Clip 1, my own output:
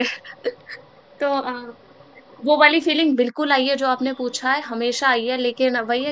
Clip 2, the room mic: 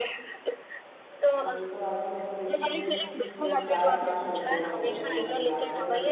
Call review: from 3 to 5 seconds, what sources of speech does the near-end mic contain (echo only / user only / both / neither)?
both